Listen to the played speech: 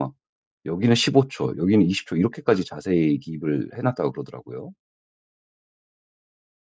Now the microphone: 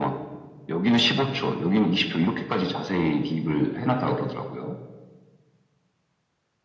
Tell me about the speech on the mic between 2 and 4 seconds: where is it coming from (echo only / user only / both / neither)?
echo only